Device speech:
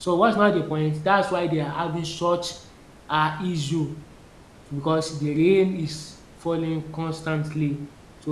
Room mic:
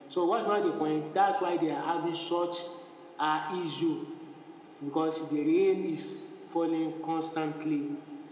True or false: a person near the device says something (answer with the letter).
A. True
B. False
B